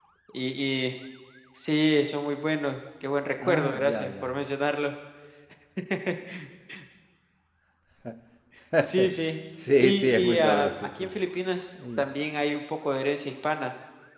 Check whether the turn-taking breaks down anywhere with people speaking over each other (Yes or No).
Yes